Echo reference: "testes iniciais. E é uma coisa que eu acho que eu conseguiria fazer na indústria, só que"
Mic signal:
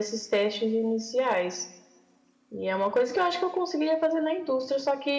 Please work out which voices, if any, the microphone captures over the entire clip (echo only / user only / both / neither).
echo only